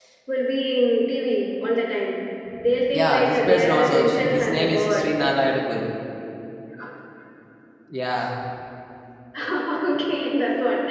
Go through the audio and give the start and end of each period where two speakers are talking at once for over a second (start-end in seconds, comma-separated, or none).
2.9-5.1